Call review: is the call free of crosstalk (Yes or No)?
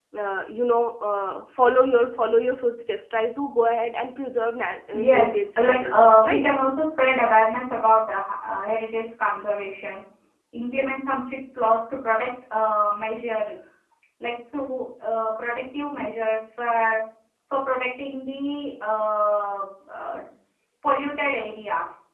No